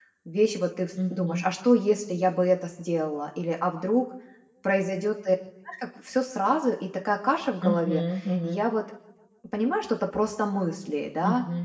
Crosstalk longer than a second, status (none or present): none